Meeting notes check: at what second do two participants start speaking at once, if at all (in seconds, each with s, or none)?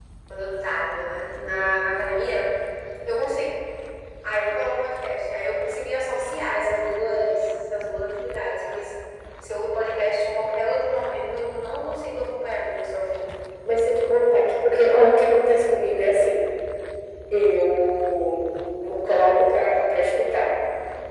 none